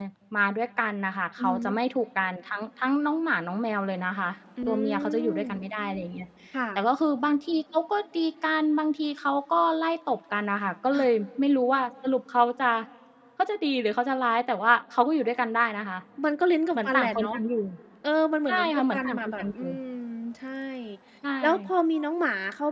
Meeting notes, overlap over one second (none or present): present